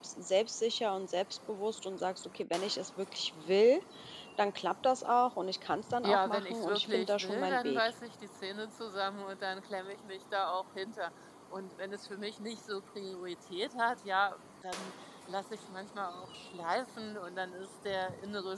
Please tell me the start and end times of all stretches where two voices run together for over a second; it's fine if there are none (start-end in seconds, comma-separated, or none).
6.0-7.8